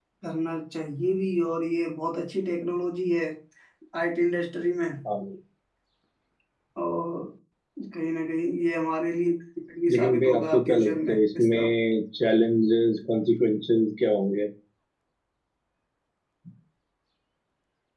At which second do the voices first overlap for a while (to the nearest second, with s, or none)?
10 s